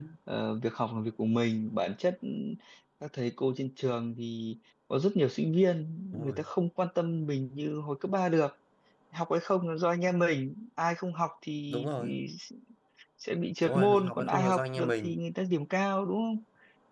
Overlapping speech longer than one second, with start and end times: 13.6-15.1

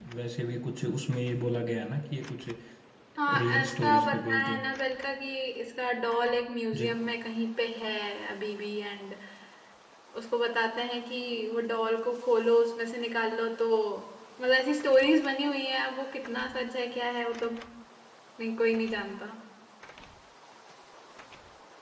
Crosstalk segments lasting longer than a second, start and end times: 3.3-4.6

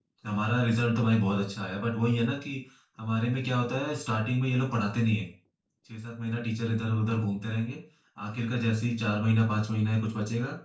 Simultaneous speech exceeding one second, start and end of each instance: none

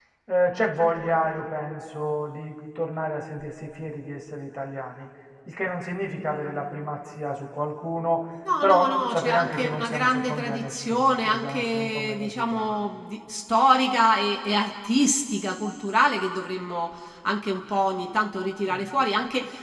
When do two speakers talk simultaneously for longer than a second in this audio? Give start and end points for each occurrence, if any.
8.6-12.7

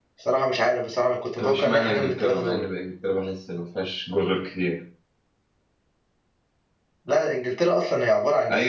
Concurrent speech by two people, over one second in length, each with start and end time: 1.4-2.6

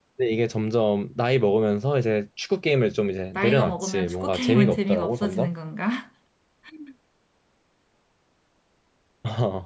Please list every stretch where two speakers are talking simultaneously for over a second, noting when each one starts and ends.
3.4-5.5

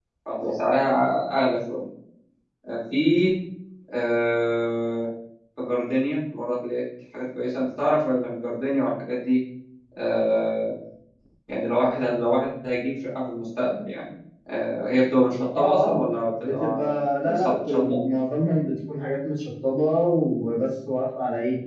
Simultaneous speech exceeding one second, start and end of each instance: 16.4-18.0

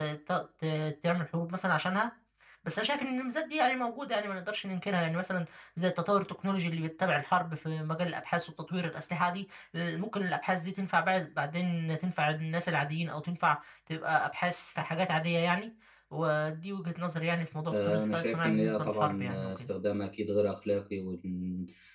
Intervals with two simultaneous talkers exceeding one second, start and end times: 17.7-19.7

